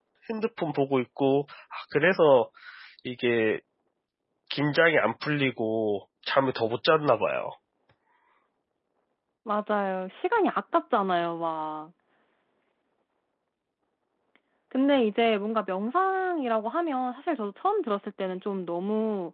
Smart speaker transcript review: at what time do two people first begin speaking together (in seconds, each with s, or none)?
none